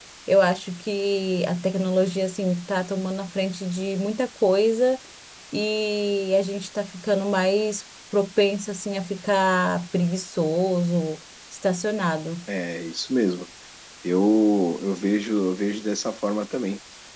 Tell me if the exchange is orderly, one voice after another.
Yes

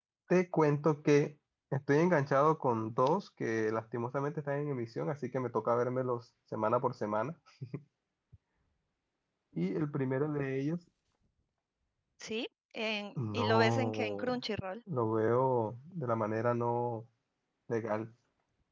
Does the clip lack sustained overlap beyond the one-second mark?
No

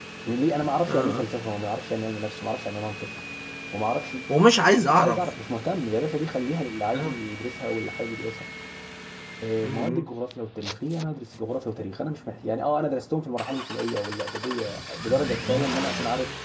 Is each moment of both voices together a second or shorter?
Yes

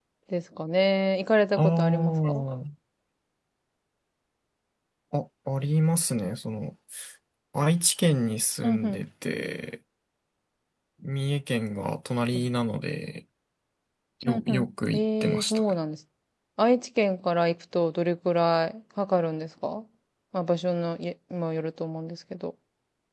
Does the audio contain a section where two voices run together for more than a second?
Yes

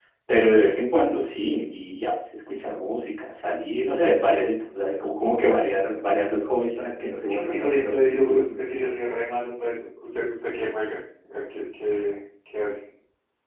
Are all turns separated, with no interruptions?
No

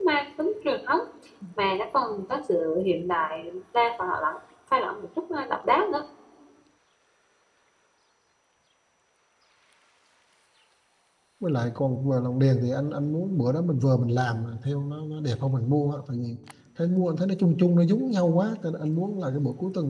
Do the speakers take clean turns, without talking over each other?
Yes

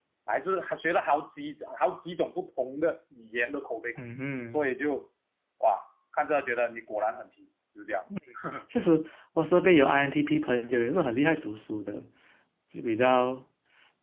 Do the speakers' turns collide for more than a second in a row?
No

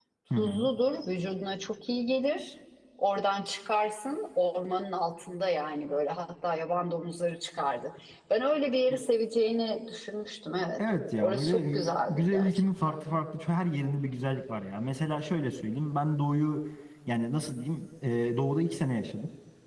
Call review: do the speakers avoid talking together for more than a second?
No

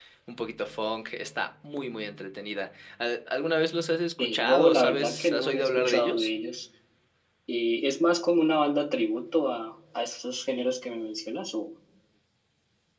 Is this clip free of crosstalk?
No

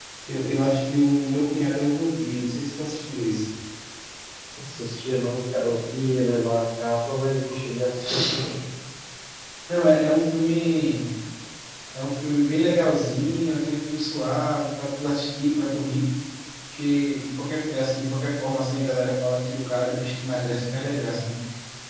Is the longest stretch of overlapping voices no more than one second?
Yes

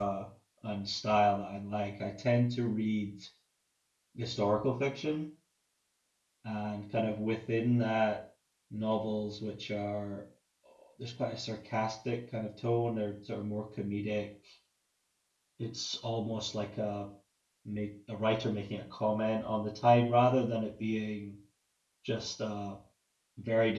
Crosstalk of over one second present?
No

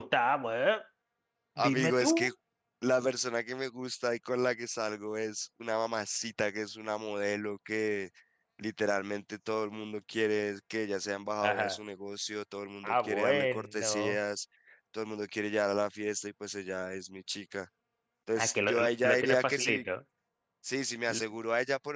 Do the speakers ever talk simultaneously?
Yes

